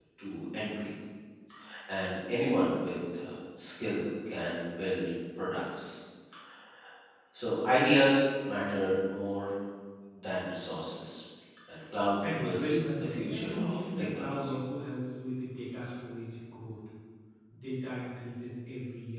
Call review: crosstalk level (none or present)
present